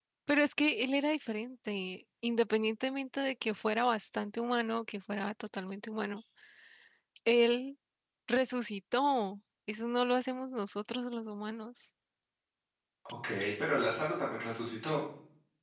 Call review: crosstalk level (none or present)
none